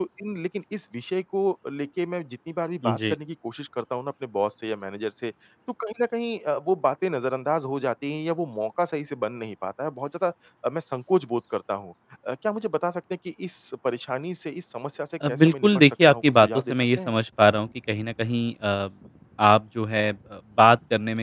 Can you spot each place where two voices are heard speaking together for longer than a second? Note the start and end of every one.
15.3-17.1

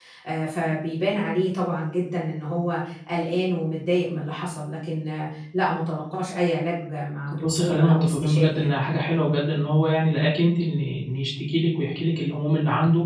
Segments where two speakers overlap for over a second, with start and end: 7.3-8.7

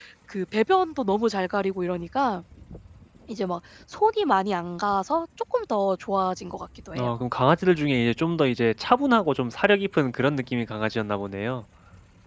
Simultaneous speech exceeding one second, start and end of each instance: none

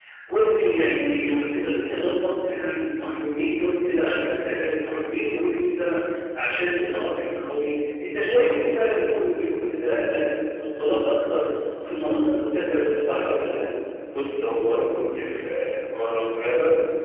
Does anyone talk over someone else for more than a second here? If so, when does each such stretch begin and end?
none

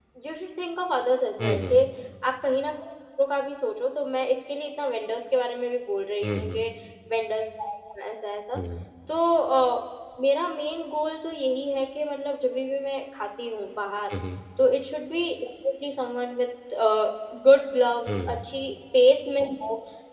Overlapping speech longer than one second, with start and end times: none

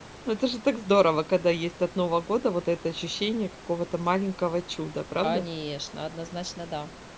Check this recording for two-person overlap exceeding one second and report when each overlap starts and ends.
none

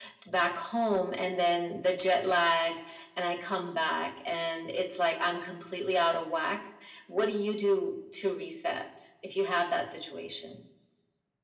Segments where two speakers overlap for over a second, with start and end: none

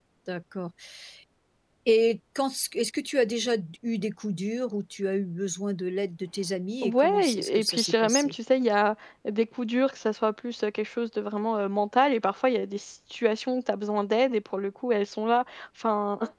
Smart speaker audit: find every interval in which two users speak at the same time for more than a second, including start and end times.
6.8-8.3

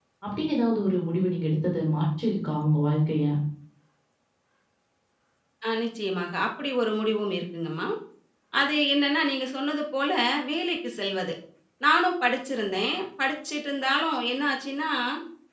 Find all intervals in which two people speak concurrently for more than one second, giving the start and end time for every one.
none

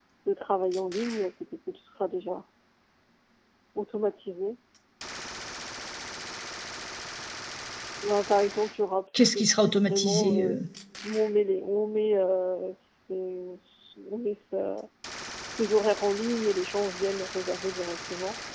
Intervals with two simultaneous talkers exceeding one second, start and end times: 9.2-10.6

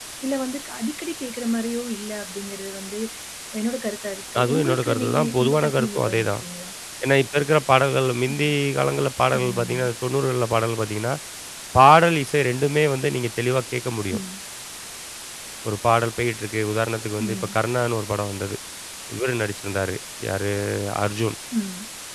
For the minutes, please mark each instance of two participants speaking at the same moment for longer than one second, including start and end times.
4.4-6.4

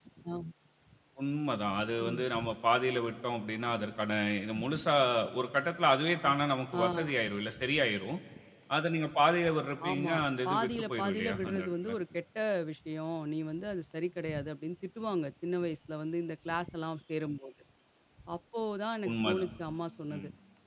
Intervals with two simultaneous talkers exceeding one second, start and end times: 9.9-11.9

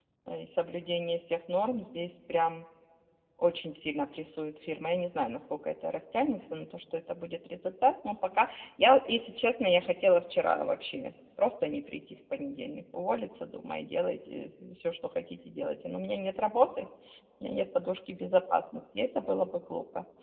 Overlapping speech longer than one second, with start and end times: none

